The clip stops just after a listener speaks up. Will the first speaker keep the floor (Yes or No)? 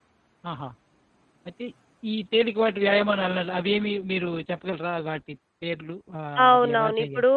No